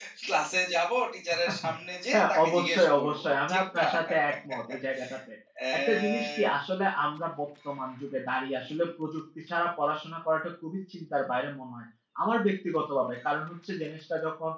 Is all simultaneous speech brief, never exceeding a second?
No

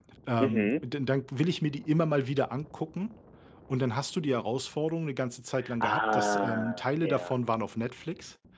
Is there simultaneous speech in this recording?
Yes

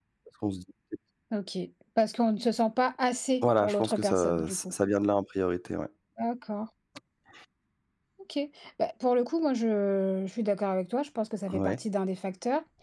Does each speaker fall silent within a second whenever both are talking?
No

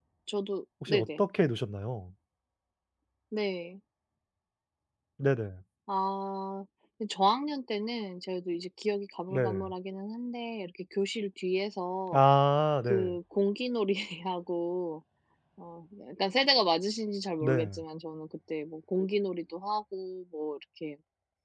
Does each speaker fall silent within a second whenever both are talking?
Yes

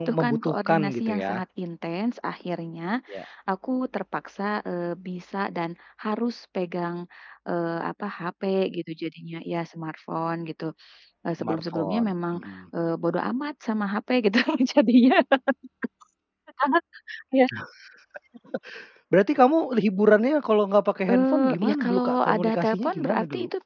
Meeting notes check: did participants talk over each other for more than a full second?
Yes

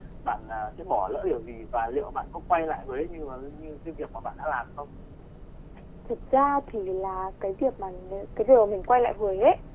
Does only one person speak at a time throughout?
Yes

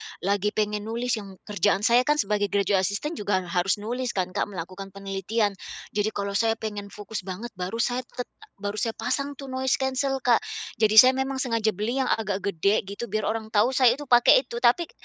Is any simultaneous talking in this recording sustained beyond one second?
No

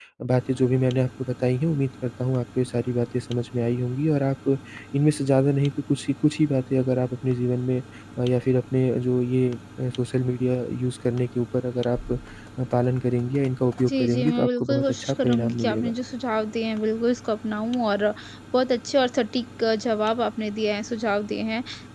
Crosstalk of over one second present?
Yes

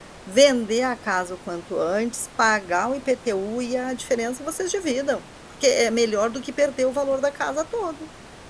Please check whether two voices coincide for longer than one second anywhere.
No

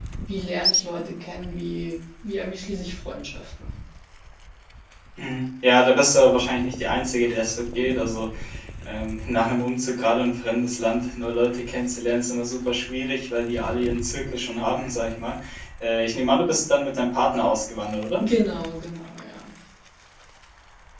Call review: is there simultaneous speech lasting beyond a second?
No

